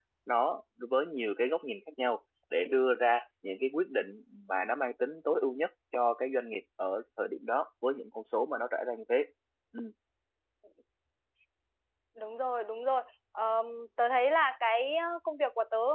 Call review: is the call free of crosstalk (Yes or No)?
Yes